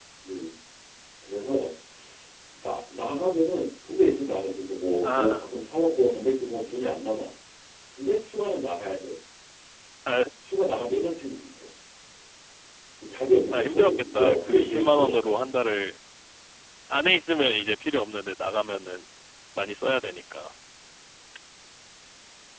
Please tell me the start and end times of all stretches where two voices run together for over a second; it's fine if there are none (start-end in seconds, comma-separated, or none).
13.5-15.5